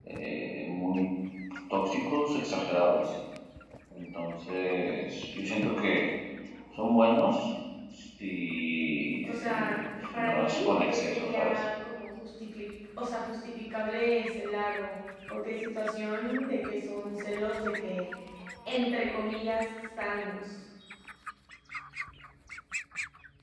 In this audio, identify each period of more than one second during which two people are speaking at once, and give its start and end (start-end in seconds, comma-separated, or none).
10.1-11.6